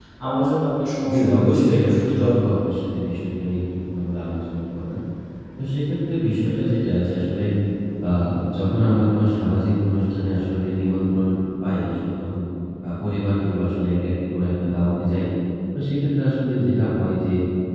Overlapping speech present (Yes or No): Yes